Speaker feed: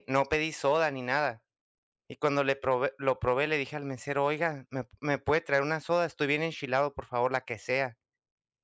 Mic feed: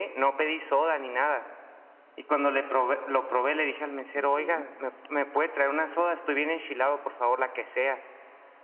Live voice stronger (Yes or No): No